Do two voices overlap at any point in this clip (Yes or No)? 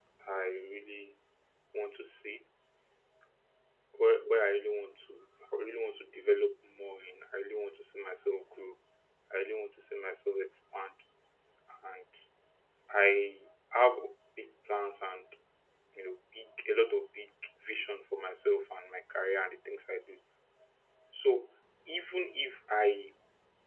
No